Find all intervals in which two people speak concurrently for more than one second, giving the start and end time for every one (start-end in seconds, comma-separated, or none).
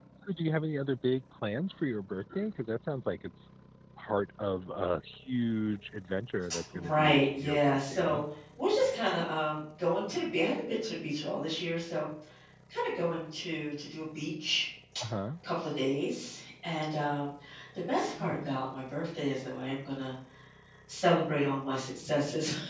6.7-8.2